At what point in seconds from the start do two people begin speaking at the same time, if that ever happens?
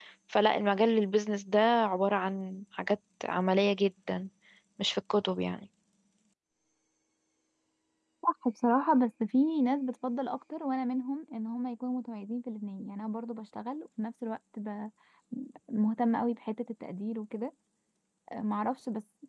none

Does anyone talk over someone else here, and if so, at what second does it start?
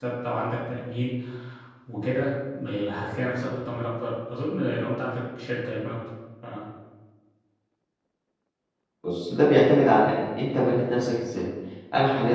none

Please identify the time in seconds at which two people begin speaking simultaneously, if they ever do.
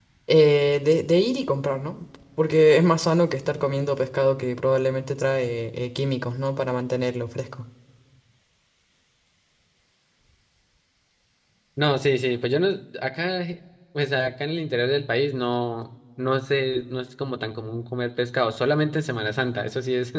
none

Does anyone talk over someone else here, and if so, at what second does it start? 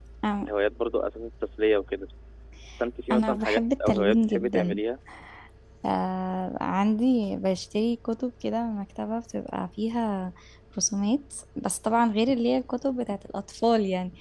3.1 s

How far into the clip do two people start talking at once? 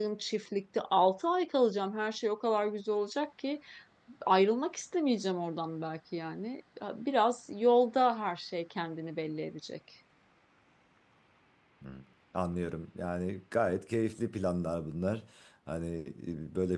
none

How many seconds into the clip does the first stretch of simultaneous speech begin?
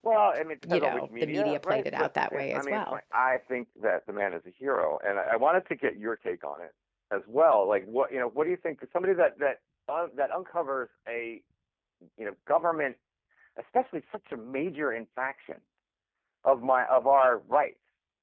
0.7 s

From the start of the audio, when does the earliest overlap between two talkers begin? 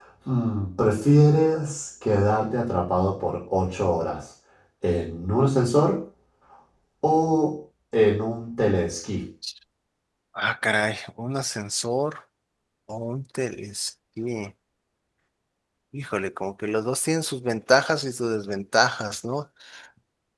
none

